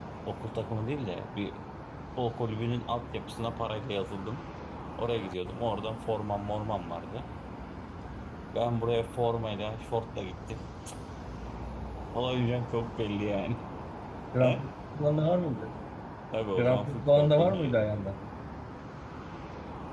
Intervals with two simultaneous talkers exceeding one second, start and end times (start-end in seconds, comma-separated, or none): 16.6-17.8